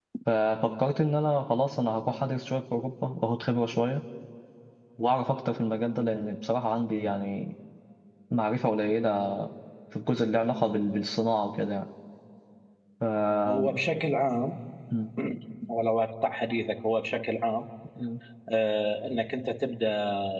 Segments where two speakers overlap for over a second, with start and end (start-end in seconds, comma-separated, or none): none